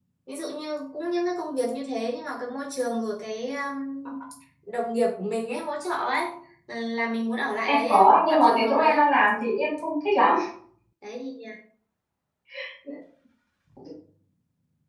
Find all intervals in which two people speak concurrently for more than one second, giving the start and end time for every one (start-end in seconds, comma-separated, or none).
7.7-9.1